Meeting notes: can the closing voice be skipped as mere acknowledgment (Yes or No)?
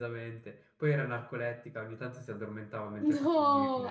No